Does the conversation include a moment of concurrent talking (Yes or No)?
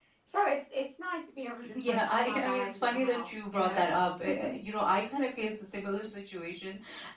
Yes